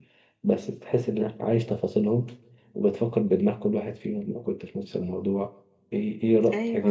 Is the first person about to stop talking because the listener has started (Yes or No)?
No